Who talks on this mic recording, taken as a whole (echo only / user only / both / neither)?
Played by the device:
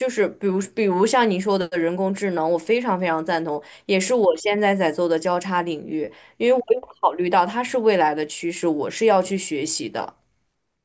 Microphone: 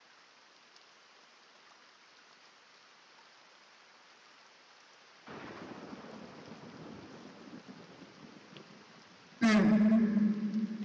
user only